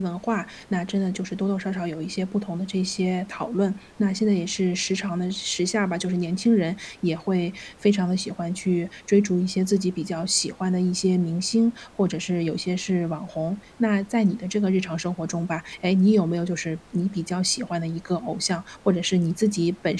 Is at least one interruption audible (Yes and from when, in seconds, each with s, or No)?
No